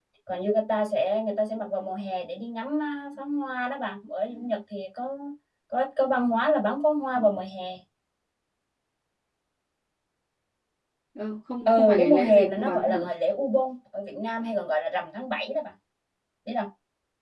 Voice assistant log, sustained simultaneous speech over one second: present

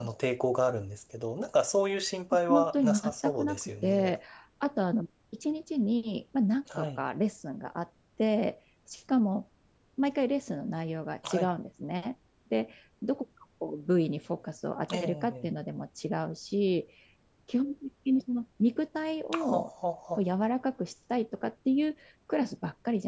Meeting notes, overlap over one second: present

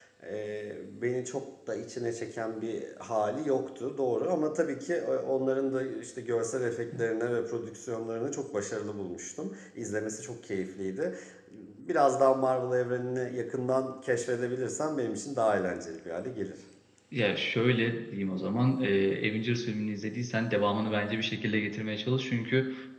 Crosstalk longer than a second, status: none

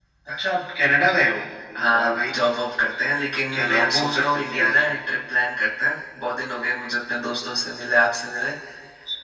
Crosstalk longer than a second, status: present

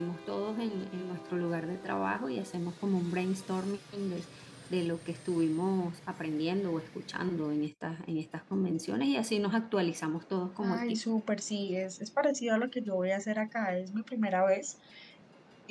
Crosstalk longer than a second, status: none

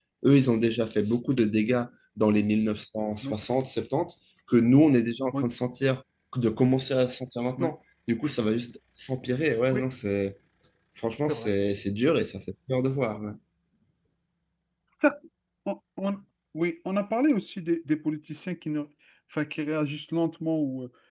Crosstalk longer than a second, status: none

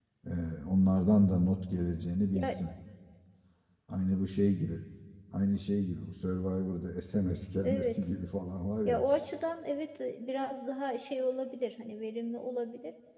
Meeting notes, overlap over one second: none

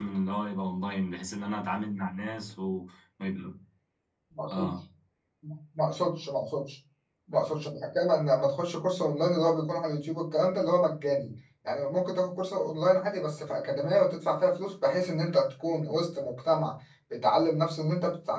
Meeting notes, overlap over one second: none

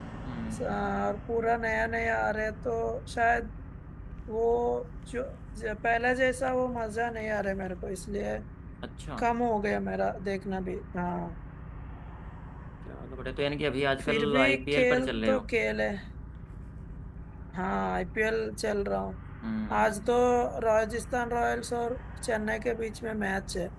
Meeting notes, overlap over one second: present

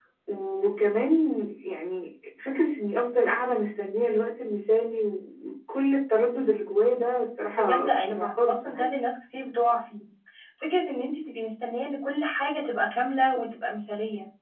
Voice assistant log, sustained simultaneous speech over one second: present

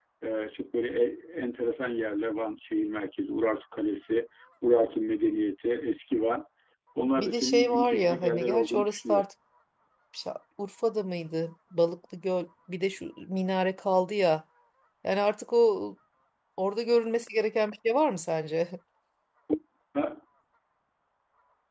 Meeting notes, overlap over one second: present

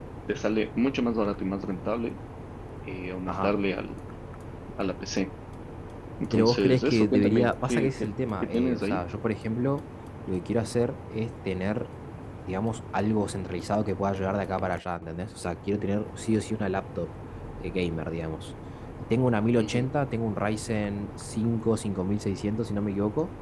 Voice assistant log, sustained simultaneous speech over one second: present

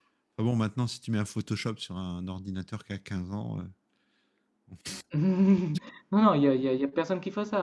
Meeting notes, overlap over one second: none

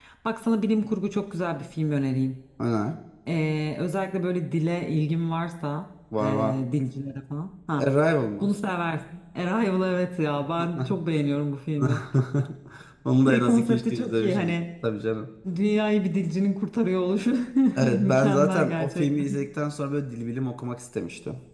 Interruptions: present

